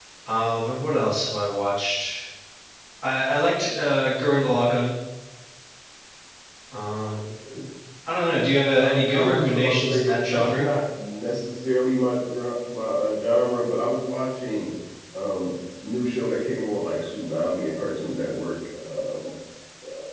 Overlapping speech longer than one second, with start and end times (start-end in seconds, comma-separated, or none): 8.7-10.7